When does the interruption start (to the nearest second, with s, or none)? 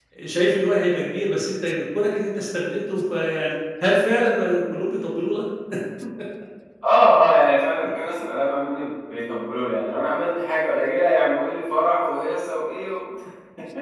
none